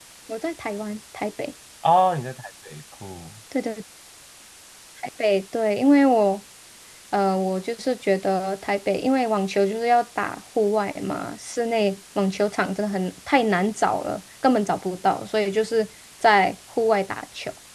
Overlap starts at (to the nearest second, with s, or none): none